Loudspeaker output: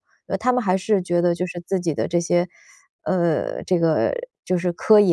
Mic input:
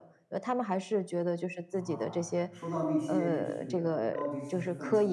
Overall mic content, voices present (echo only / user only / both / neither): both